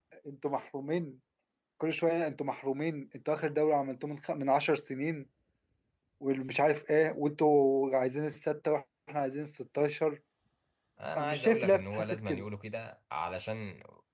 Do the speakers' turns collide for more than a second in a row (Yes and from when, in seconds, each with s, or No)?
Yes, from 11.2 s